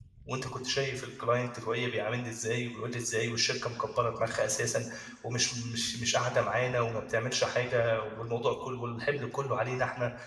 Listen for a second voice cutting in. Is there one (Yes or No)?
No